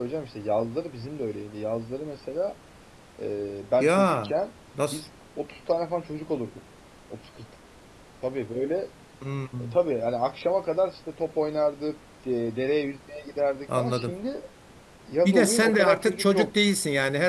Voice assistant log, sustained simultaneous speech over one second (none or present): present